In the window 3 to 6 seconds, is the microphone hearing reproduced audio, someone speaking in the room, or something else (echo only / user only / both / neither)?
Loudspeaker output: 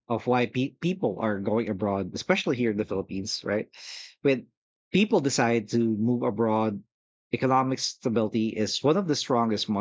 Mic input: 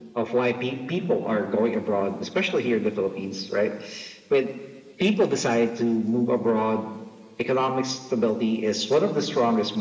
echo only